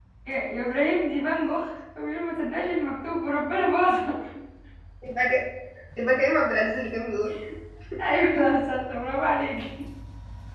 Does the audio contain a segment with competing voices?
No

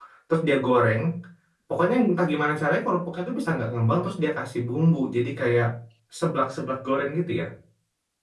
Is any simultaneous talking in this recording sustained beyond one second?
No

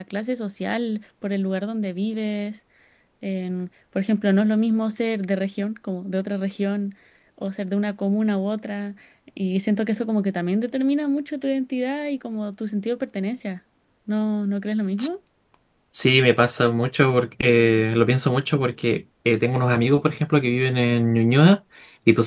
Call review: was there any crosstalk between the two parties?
No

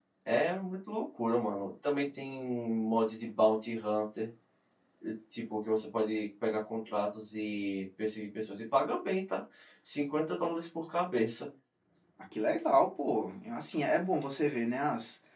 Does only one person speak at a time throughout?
Yes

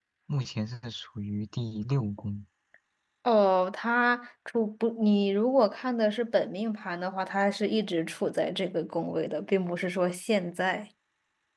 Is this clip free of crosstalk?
Yes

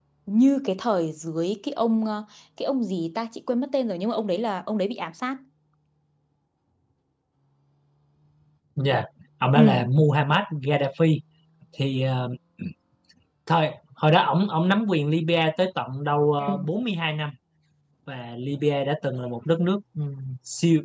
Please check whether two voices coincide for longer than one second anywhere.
No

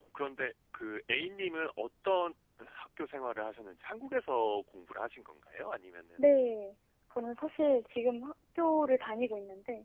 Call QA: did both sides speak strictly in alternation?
Yes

